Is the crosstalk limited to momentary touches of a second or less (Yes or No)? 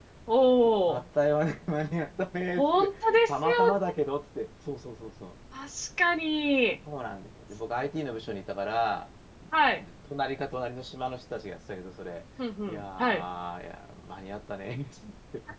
No